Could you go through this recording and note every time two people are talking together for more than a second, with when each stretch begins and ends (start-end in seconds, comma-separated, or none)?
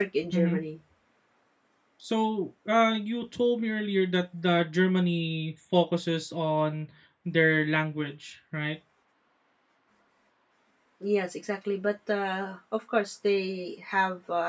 none